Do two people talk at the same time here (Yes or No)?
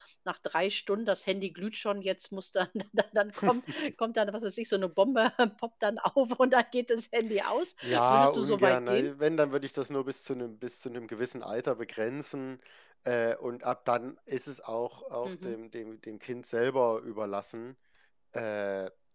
Yes